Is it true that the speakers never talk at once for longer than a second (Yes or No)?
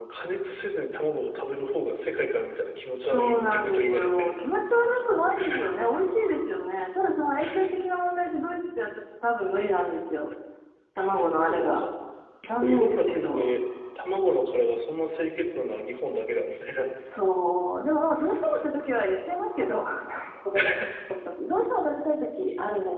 No